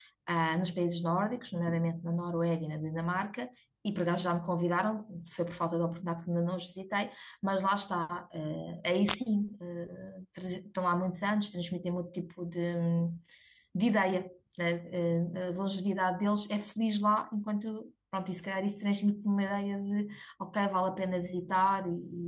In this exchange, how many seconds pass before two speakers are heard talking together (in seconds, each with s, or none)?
none